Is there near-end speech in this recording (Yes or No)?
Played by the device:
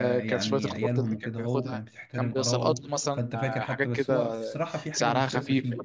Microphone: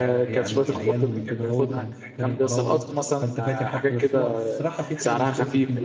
No